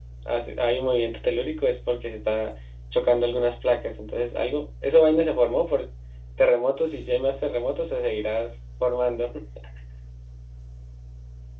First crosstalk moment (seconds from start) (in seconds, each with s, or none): none